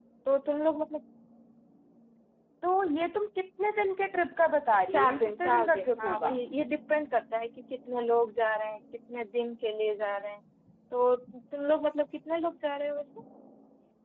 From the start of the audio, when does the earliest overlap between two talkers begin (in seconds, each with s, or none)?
4.9 s